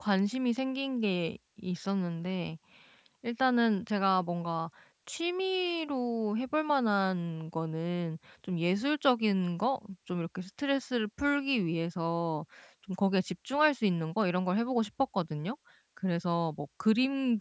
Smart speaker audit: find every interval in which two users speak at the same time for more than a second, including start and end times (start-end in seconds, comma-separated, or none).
none